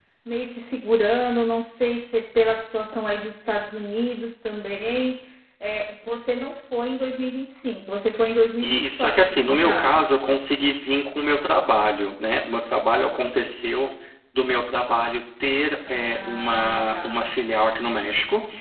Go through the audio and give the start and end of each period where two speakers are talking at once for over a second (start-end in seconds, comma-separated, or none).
8.6-10.1, 15.9-17.2